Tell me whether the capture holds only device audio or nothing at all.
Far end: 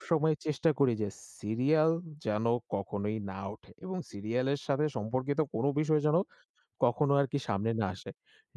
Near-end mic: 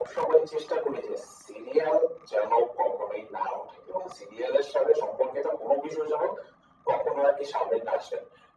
Yes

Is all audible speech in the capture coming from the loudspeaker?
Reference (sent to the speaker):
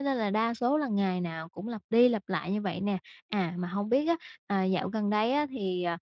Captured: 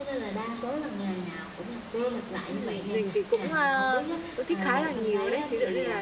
No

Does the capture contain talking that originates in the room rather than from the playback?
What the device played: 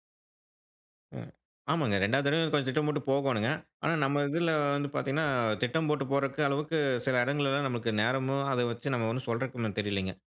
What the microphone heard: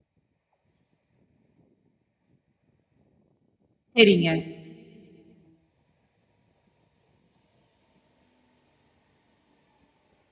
Yes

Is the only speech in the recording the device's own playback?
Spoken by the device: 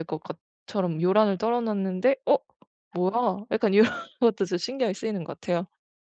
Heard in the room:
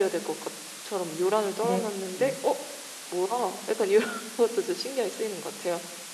No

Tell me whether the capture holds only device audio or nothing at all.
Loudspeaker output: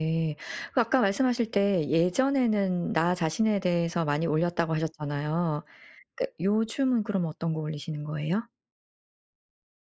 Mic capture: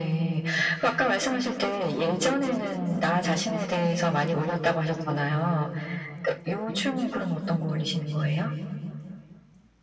Yes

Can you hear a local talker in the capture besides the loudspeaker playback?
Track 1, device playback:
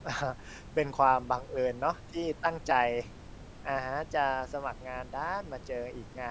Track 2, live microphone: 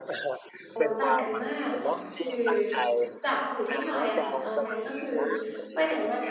Yes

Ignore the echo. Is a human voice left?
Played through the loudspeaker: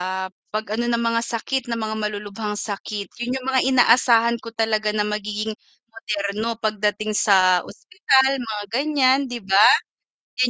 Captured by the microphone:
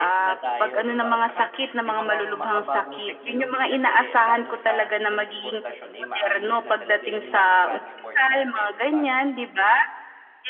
Yes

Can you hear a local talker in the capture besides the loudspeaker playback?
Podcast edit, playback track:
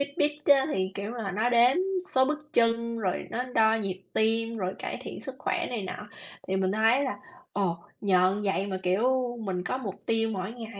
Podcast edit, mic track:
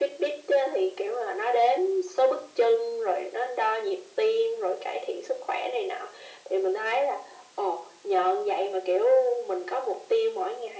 No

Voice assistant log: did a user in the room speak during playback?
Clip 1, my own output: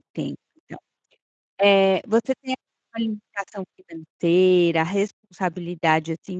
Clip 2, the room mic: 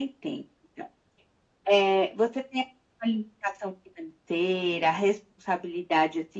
No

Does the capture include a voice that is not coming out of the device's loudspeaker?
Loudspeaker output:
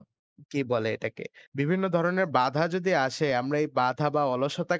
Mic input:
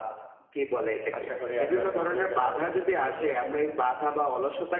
Yes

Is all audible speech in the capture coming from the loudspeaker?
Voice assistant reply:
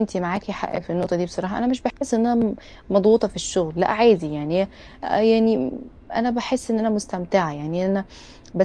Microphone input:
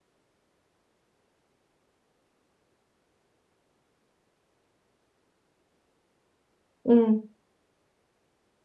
No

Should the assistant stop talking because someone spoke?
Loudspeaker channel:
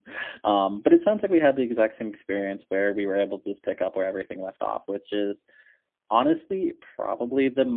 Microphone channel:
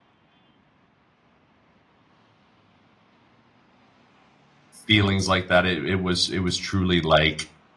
Yes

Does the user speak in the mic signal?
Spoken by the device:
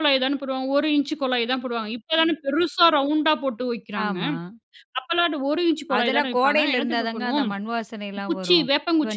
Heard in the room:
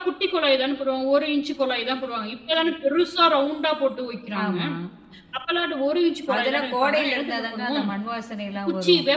No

